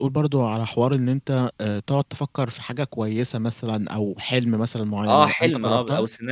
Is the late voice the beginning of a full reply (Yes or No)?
Yes